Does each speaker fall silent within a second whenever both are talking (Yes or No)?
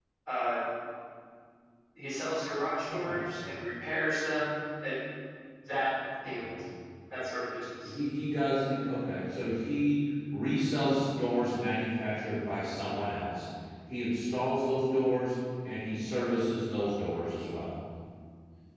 Yes